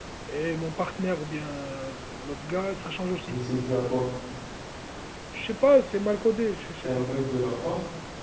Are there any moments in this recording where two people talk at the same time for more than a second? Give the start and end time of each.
none

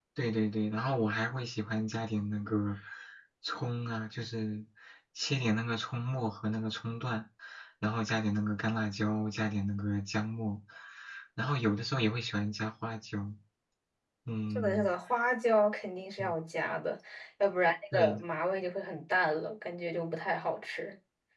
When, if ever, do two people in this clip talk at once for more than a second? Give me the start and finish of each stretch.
none

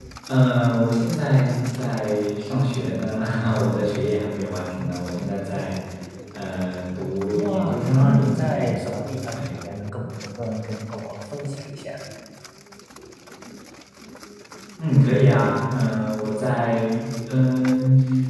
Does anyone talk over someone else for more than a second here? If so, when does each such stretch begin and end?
7.3-8.7

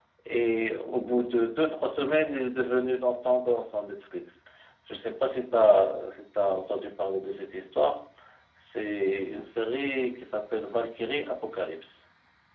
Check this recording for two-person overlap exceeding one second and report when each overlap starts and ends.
none

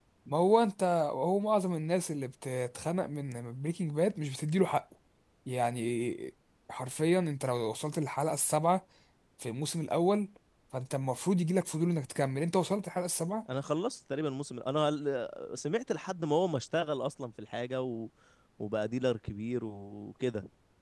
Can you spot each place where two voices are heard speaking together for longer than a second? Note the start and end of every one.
none

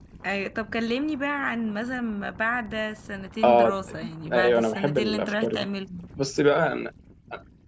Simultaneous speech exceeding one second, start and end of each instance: 4.3-5.6

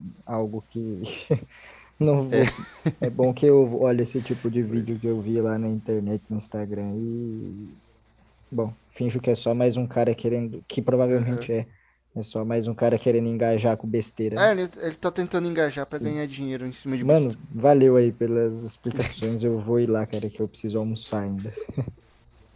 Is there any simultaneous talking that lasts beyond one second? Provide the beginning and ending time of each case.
none

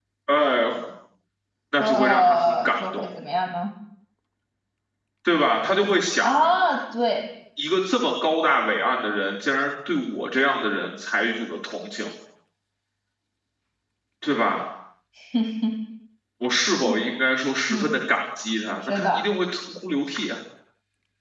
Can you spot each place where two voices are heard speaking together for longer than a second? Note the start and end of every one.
1.8-3.1

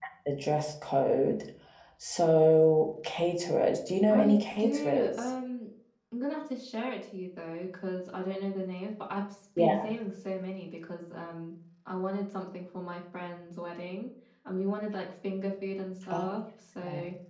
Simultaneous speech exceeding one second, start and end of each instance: 4.1-5.3

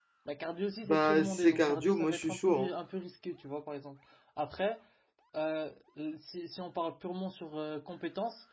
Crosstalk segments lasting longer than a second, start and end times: 0.9-2.7

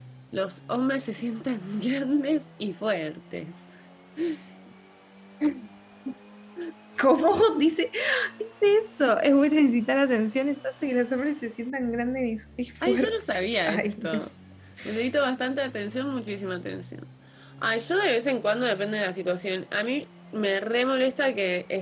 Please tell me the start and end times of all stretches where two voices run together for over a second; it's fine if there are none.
12.8-14.2

